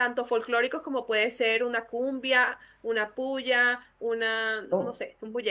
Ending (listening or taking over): listening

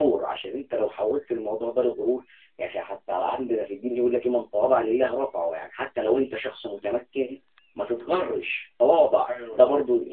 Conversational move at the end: listening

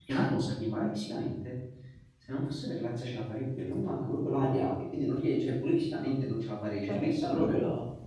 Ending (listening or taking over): taking over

